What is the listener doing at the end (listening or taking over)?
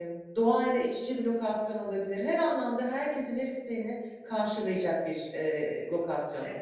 taking over